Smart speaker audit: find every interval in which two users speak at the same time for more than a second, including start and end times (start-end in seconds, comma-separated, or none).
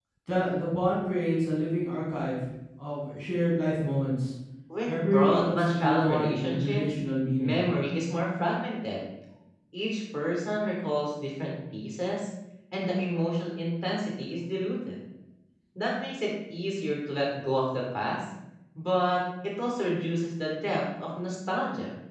4.9-6.9